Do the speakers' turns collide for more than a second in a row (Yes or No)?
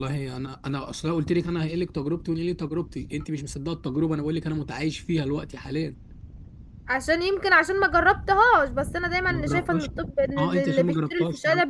Yes